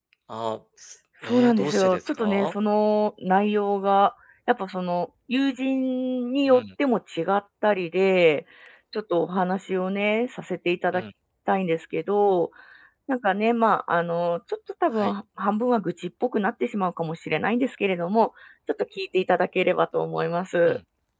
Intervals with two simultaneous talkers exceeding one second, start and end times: 1.2-2.5

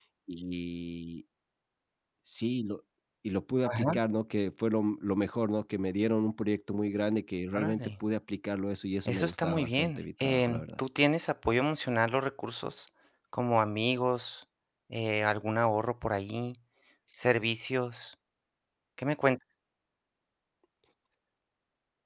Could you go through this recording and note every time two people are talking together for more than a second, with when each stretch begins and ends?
9.1-10.8

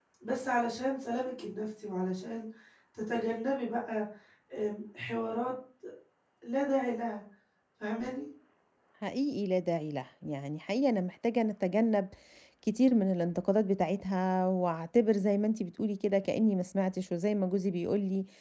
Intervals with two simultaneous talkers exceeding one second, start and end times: none

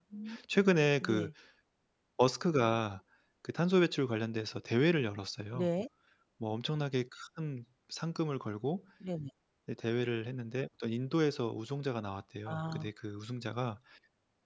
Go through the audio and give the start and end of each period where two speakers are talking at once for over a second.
none

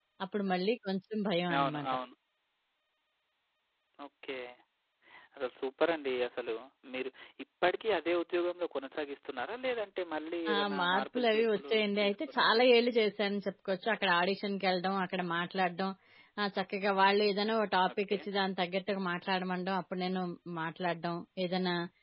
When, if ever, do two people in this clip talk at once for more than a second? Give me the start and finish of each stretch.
10.5-12.7

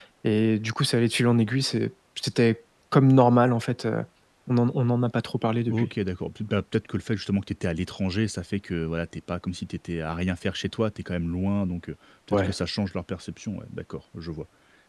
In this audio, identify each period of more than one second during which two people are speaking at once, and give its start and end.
none

